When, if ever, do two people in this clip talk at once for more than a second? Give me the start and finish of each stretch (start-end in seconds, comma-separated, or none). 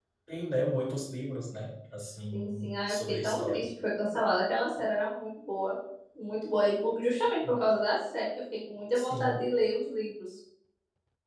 2.3-3.7